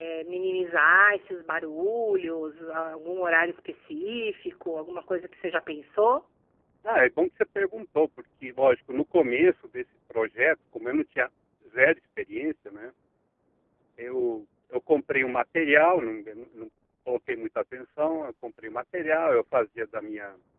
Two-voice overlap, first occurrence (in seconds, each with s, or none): none